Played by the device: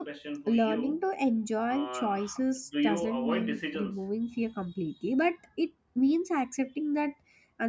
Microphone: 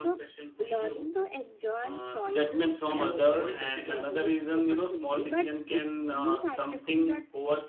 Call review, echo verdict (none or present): present